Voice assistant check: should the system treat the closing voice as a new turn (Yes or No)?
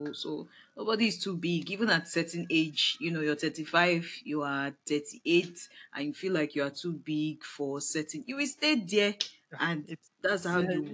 Yes